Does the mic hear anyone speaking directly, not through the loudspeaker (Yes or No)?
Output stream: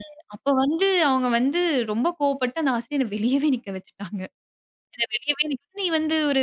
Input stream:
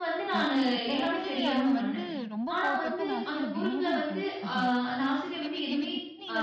Yes